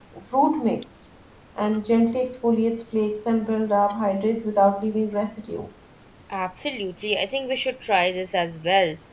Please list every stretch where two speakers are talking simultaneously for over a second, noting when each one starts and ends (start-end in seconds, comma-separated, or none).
none